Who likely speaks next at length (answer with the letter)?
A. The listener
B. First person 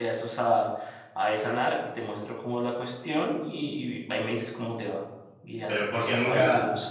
A